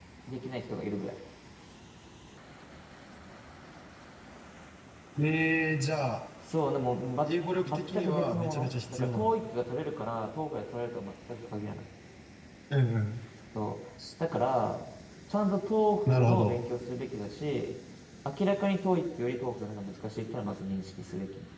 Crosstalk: present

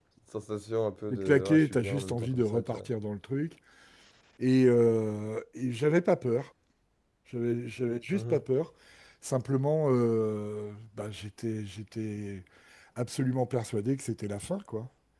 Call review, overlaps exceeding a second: present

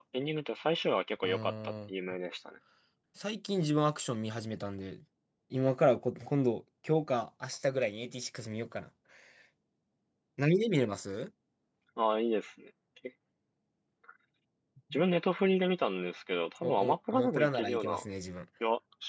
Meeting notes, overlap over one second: present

